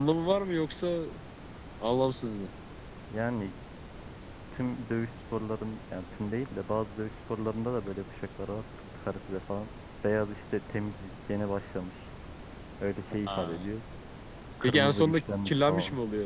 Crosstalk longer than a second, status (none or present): present